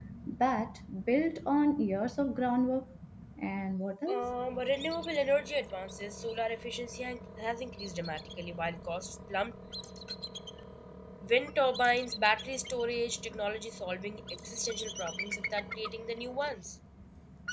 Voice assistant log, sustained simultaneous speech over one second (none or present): none